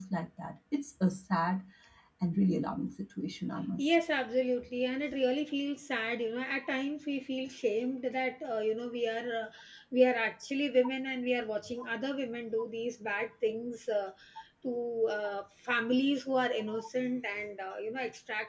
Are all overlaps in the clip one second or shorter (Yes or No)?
Yes